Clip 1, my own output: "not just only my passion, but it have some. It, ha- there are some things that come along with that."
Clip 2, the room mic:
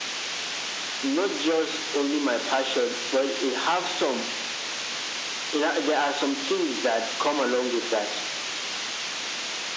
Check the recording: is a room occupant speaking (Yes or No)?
No